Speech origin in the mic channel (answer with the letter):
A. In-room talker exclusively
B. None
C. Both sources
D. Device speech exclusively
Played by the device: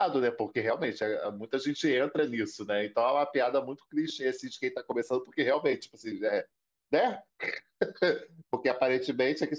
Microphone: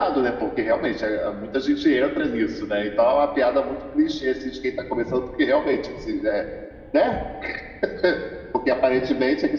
D